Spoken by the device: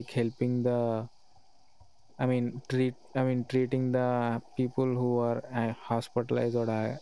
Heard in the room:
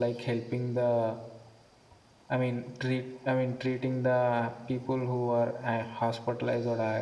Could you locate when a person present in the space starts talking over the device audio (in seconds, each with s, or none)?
none